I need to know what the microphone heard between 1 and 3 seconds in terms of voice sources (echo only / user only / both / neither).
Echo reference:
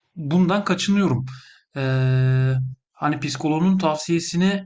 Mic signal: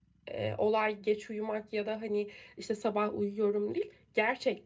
user only